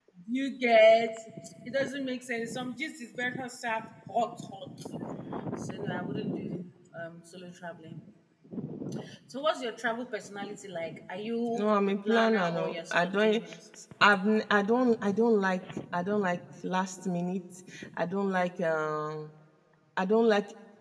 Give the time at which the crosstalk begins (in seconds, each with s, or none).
11.5 s